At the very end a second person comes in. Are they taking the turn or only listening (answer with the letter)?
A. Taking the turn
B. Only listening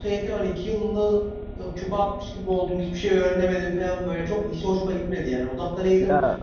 B